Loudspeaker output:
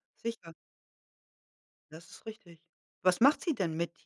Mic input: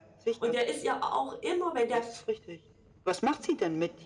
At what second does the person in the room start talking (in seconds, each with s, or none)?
0.4 s